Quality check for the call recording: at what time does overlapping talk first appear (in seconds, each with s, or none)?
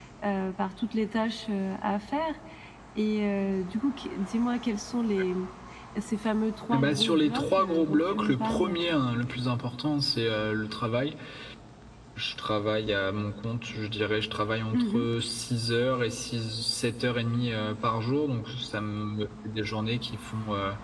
6.7 s